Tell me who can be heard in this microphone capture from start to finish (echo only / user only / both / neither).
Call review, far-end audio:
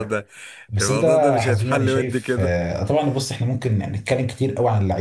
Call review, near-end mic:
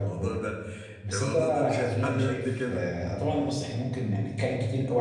echo only